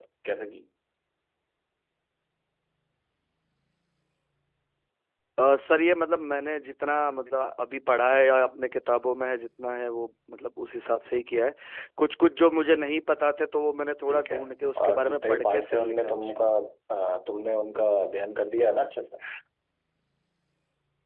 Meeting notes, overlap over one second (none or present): present